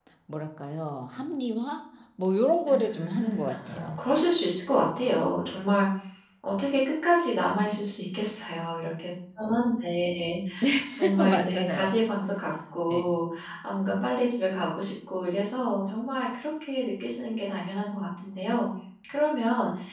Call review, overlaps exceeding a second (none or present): present